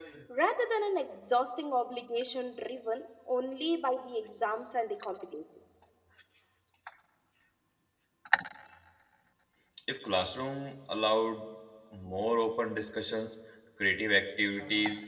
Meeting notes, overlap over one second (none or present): none